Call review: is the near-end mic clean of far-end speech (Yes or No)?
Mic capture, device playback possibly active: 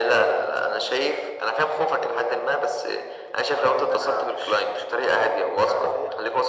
No